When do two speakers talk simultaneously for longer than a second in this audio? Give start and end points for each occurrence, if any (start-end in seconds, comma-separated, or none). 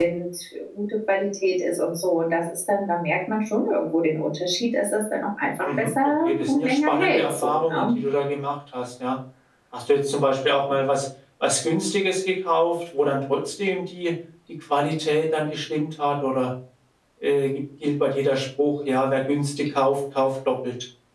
5.6-8.0